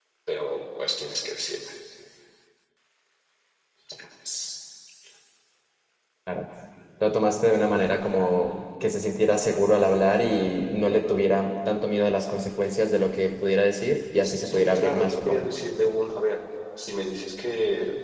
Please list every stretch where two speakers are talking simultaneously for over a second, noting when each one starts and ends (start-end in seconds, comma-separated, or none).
14.2-15.5